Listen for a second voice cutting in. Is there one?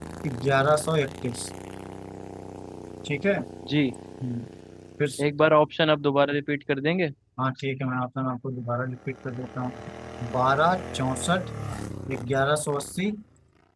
No

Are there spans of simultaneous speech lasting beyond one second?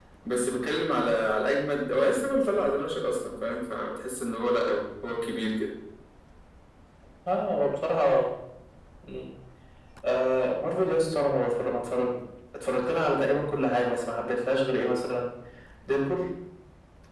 No

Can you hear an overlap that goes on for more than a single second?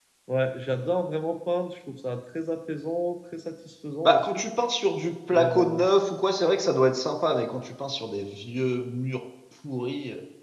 No

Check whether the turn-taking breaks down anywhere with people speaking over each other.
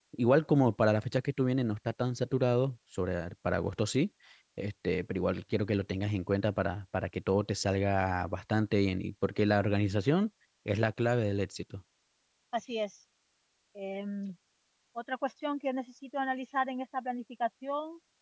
No

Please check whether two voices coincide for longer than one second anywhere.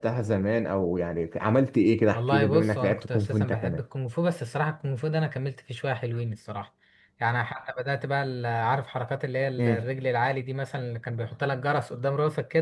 Yes, from 2.1 s

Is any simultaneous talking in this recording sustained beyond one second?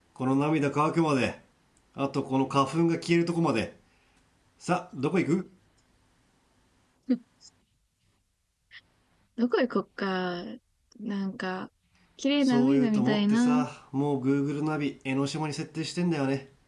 Yes, from 12.4 s

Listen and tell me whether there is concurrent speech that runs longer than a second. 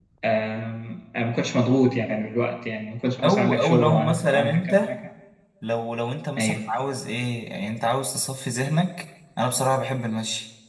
Yes, from 3.2 s

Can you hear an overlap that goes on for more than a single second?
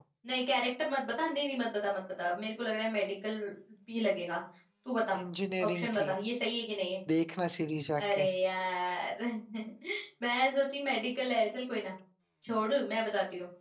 No

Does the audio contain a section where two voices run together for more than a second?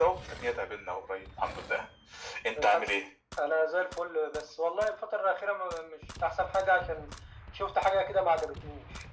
No

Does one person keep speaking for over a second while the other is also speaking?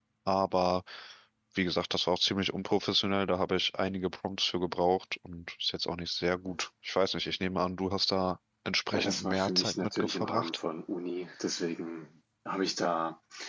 Yes, from 8.9 s

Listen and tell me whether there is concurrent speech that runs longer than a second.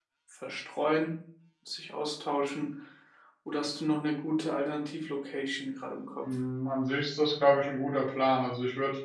No

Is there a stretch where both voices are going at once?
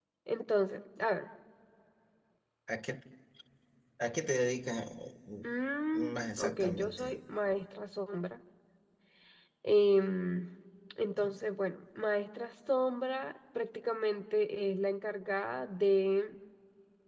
Yes, from 5.9 s

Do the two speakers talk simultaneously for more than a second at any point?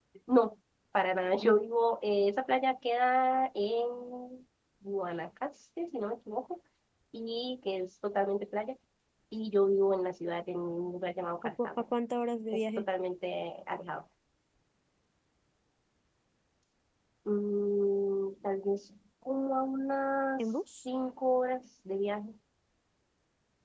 No

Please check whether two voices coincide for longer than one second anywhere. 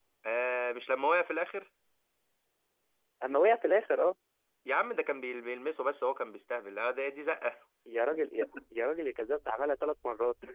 No

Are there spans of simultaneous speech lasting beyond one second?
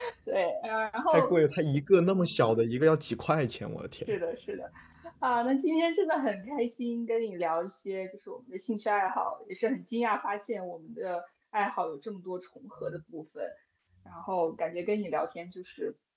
No

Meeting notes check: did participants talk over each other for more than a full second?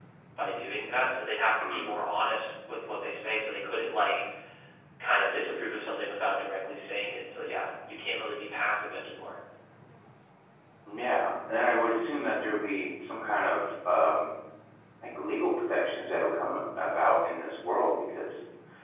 No

